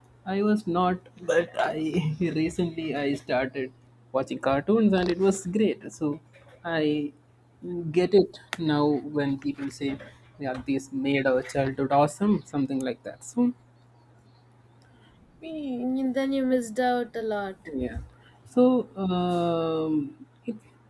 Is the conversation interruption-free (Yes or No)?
Yes